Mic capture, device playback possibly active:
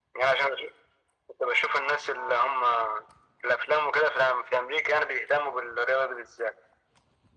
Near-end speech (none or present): none